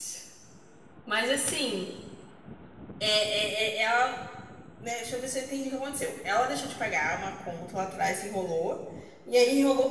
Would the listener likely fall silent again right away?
Yes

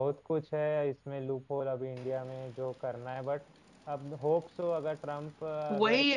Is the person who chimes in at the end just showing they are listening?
No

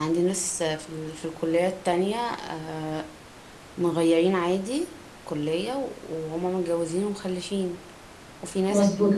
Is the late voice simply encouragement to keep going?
No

